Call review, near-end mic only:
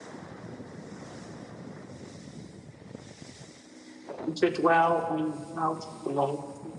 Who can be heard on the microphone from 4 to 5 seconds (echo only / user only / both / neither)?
user only